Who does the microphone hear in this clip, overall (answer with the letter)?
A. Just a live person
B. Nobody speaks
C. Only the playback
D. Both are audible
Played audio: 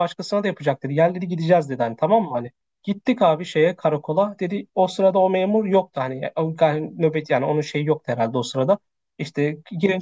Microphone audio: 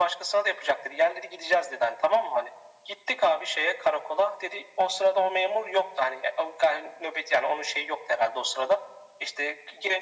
C